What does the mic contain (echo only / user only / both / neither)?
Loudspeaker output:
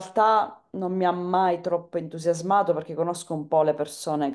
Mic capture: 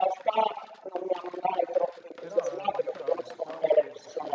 both